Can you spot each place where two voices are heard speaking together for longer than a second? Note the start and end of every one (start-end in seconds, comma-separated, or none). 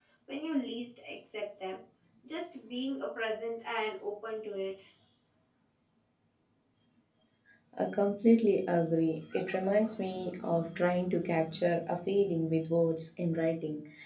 none